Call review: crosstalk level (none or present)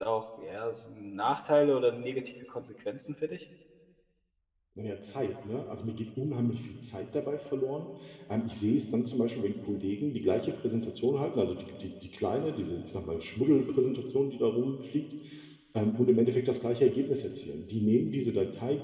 none